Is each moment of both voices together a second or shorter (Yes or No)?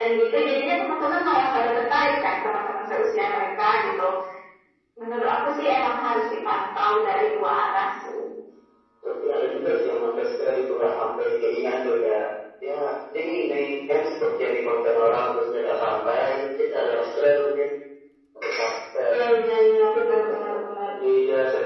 Yes